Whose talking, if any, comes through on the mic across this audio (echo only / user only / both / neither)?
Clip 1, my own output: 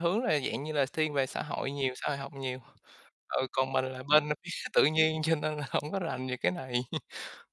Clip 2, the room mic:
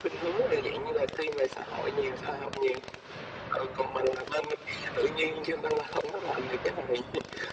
echo only